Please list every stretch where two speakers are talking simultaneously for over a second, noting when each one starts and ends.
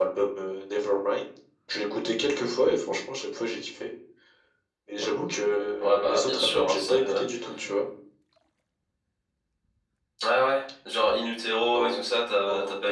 5.8-7.2

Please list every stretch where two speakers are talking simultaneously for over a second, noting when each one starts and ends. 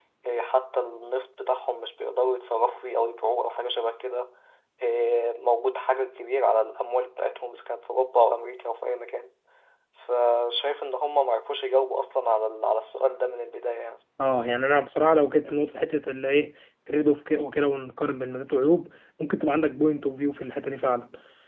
none

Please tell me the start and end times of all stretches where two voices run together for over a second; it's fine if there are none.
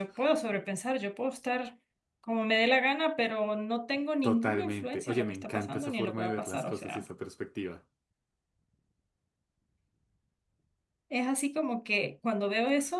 4.2-7.0

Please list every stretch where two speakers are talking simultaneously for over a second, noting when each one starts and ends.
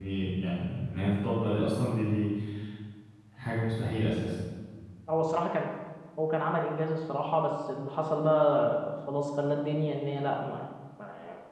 none

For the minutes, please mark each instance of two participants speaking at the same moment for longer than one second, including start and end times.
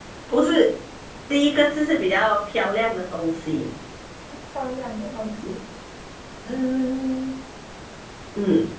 none

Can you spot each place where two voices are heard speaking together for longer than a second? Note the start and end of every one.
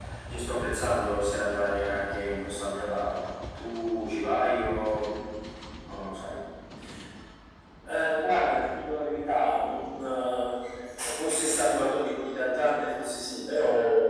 none

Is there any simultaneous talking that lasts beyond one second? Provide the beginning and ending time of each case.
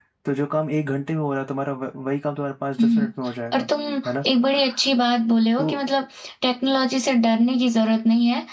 none

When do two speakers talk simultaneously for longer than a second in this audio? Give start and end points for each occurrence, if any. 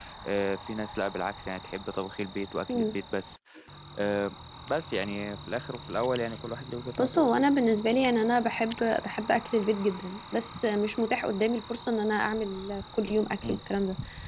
none

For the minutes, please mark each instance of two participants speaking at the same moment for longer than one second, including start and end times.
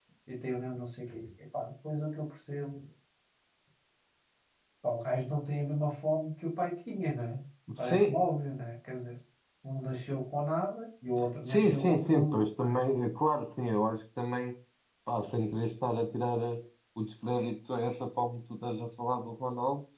11.5-12.8

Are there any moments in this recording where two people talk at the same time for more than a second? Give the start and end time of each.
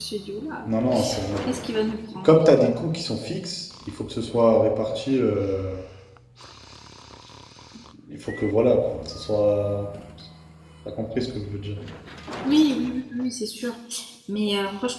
none

